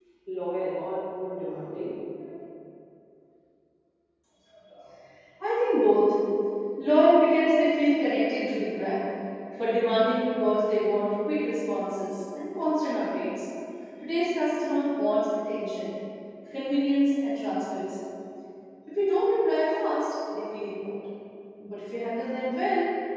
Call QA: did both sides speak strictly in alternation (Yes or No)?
Yes